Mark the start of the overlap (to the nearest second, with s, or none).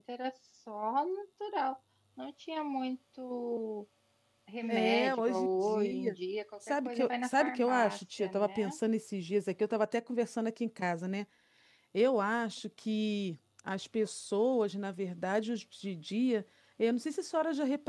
5 s